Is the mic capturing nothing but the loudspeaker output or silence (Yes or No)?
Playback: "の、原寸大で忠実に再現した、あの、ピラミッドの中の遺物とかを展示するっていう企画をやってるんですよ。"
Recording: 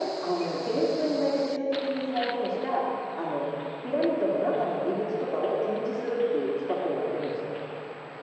Yes